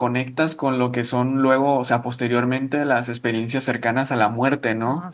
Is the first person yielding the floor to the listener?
No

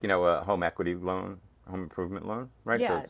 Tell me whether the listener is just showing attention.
Yes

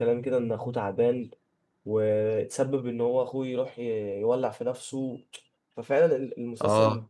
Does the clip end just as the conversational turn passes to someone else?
No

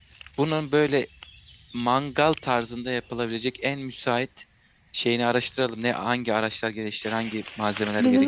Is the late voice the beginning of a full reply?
Yes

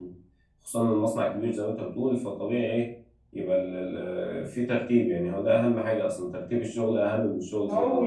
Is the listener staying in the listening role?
No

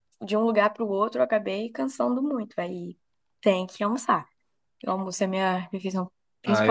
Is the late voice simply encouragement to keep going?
No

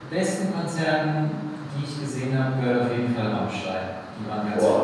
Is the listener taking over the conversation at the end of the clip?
Yes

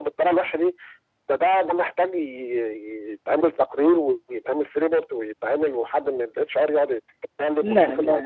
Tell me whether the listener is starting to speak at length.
Yes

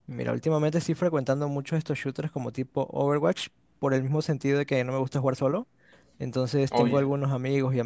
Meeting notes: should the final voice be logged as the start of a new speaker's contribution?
No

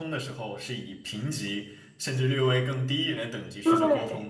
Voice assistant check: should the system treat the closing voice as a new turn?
Yes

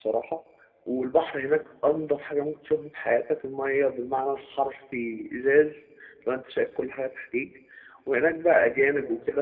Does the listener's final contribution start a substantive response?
No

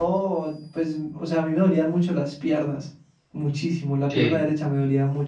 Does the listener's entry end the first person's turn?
No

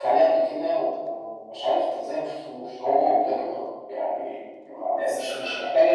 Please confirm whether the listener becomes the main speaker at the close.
No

